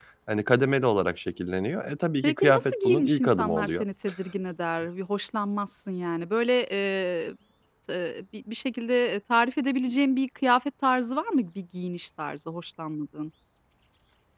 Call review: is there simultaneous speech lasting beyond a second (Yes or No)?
Yes